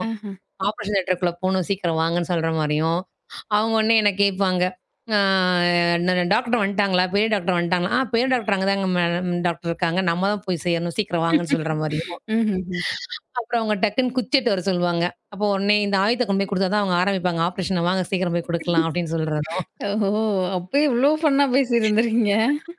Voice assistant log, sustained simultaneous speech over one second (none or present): none